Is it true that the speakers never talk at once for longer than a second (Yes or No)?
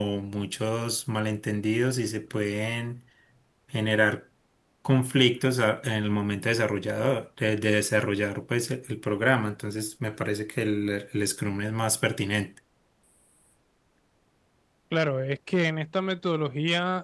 Yes